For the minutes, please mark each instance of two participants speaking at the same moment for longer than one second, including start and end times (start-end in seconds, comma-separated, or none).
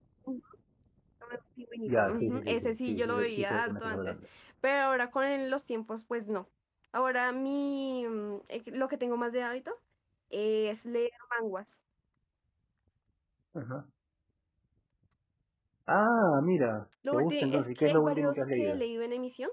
1.9-4.2, 17.1-18.8